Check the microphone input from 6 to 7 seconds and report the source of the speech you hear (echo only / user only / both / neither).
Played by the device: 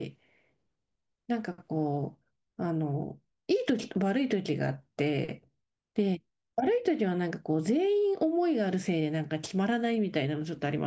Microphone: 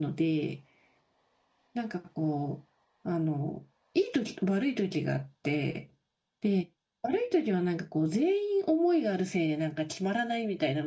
echo only